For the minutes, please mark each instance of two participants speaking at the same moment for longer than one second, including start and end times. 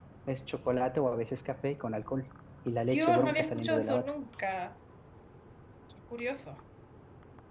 2.9-4.1

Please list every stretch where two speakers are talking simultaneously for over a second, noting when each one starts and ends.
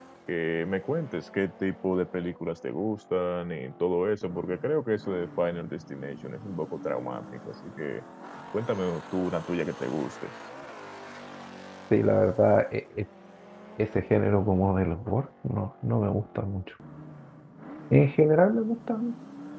none

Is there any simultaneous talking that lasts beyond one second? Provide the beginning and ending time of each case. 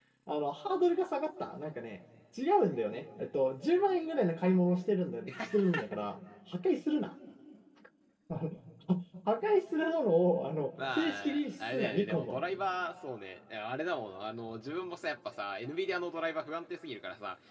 11.0-12.4

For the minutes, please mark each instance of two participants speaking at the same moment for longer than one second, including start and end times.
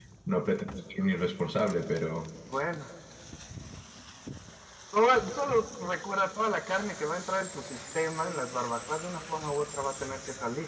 none

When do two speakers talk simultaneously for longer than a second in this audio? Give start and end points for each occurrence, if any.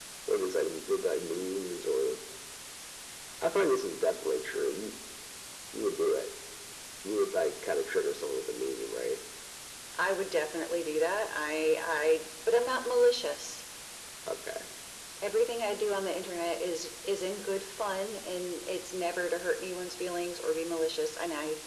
none

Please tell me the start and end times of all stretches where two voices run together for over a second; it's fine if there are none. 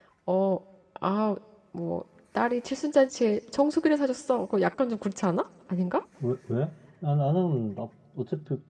none

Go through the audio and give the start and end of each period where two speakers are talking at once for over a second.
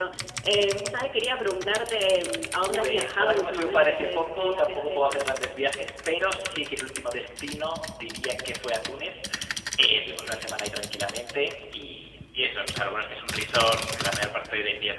2.6-5.2

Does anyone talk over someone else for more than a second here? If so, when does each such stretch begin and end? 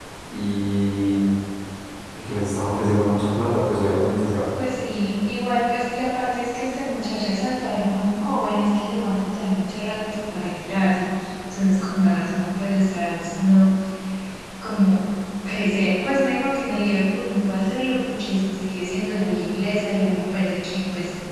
none

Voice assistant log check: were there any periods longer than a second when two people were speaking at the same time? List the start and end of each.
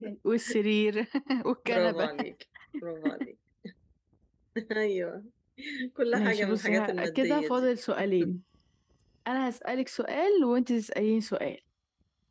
6.1-7.7

